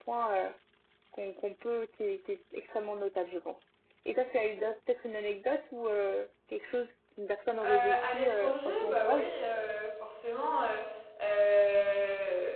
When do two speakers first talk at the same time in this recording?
7.6 s

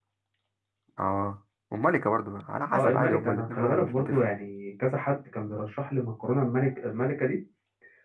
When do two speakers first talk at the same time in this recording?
2.7 s

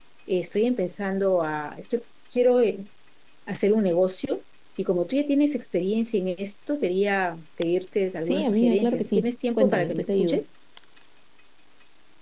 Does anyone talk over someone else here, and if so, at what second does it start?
8.3 s

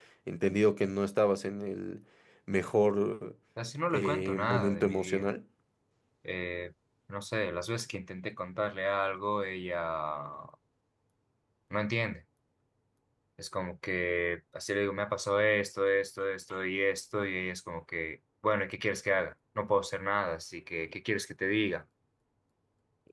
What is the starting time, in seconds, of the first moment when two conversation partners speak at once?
3.9 s

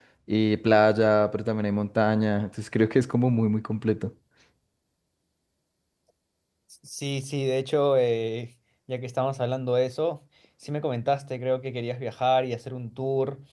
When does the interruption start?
none

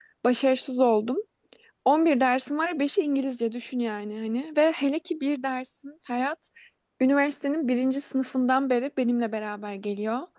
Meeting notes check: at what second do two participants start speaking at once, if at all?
none

